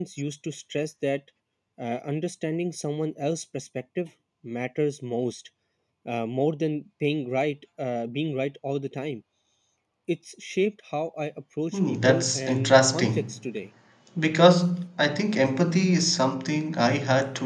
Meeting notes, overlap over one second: present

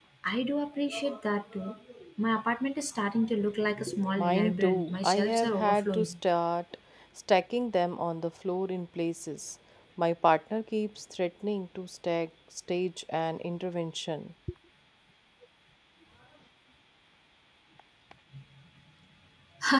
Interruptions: present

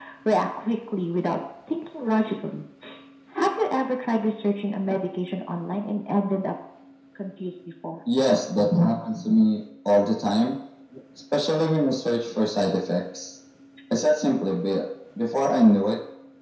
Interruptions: none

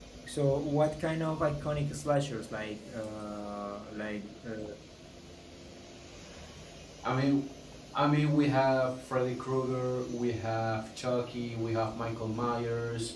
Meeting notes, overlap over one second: none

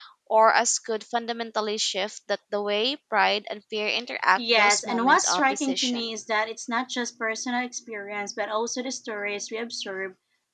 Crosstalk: present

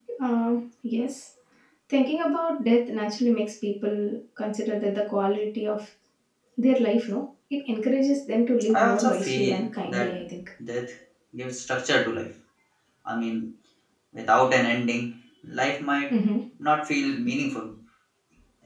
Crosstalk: present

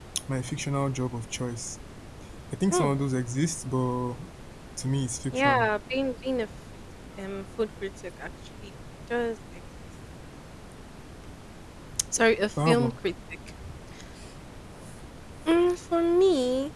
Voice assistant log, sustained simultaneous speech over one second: none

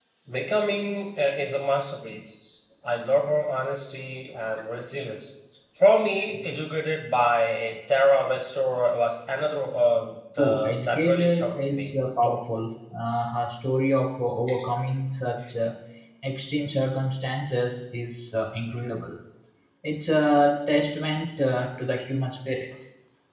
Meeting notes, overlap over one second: present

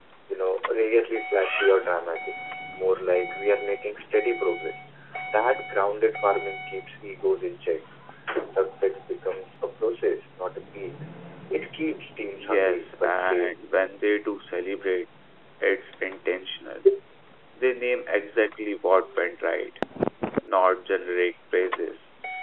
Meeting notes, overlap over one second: present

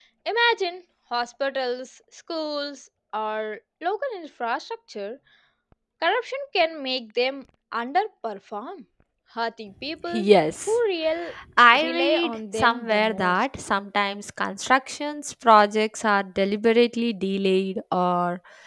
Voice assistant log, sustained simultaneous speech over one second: present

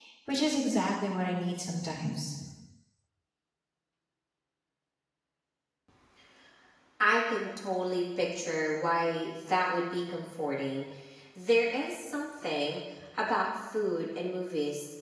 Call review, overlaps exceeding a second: none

